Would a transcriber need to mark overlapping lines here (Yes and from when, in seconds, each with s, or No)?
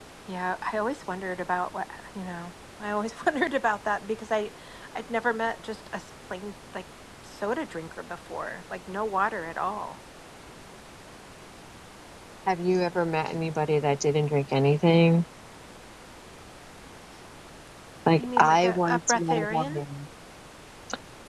Yes, from 18.2 s